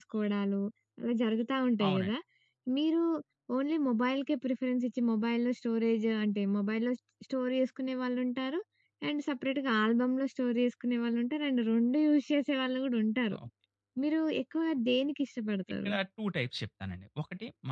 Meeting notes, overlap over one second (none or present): none